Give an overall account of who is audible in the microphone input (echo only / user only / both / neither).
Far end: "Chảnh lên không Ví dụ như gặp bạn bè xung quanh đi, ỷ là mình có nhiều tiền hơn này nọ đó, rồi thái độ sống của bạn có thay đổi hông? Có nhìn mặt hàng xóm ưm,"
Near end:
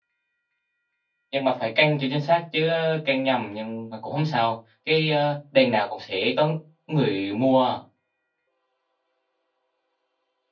user only